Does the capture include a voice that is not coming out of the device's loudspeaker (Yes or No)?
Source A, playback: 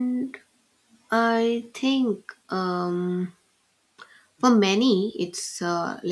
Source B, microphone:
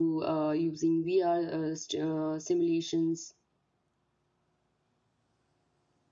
Yes